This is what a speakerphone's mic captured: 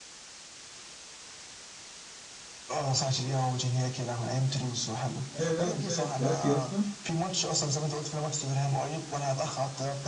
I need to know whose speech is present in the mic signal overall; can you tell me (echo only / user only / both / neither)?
both